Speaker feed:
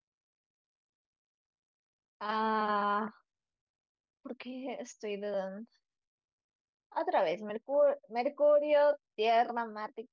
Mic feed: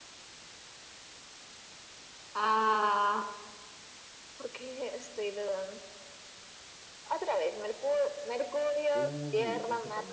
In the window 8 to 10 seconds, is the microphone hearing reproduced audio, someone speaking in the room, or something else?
both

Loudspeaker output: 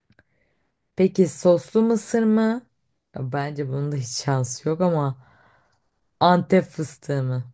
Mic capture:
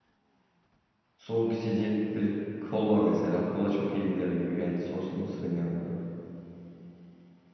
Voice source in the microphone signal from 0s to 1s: neither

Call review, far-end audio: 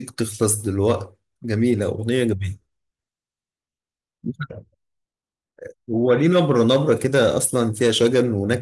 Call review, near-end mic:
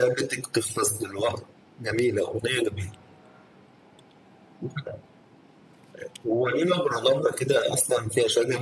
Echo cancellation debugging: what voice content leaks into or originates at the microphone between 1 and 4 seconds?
echo only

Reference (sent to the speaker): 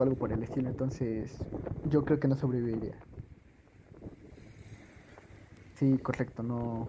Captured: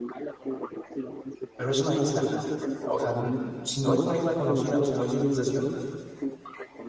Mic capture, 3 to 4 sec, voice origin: both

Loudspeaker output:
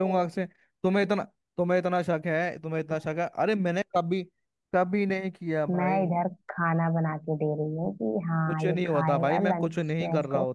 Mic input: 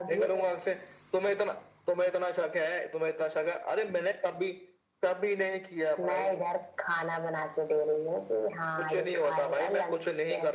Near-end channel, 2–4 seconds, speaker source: echo only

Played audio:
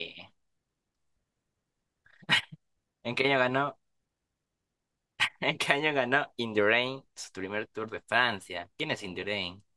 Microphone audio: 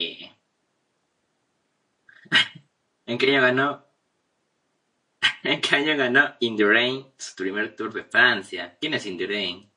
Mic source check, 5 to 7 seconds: echo only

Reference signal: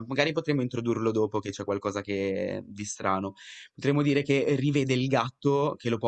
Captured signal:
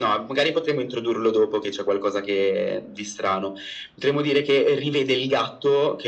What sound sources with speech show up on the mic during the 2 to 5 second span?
echo only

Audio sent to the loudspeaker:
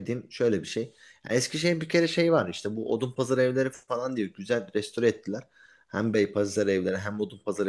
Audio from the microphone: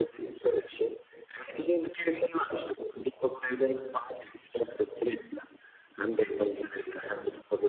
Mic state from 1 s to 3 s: echo only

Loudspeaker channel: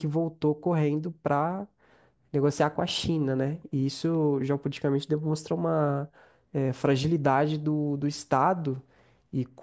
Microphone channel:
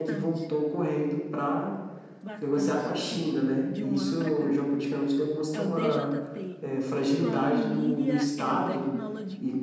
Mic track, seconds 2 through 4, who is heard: both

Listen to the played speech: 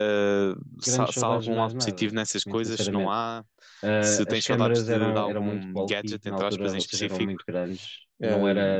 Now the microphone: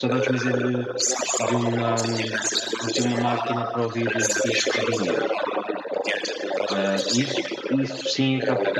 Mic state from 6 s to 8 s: both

